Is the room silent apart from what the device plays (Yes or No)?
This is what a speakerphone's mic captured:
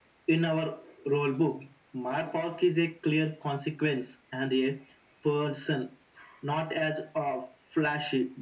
Yes